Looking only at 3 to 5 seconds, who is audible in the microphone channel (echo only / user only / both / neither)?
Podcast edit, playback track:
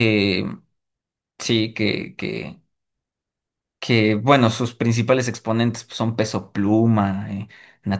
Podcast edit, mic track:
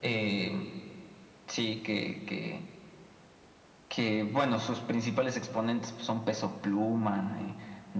echo only